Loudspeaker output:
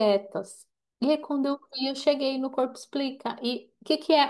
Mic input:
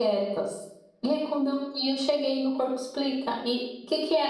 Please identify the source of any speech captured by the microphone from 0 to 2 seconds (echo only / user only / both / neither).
echo only